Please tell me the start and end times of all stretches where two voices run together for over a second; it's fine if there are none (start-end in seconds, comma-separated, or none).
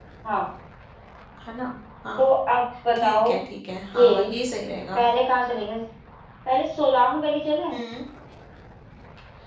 none